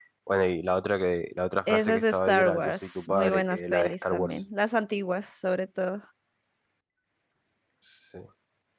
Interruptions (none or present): present